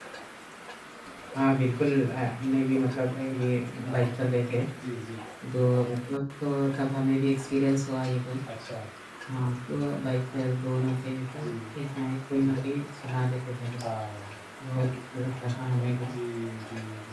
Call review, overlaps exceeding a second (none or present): none